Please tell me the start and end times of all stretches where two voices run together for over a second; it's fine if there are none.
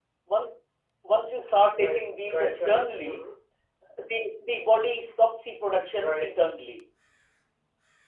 1.7-3.2

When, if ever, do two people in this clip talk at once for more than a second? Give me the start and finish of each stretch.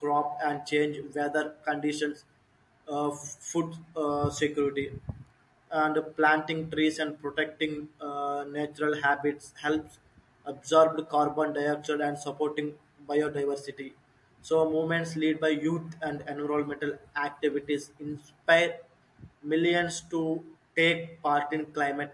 none

